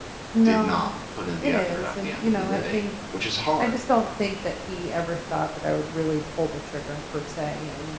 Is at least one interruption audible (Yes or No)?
Yes